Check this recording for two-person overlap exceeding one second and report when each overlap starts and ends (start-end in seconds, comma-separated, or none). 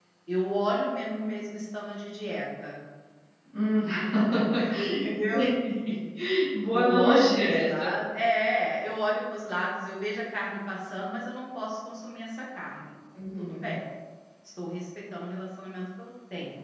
6.7-7.9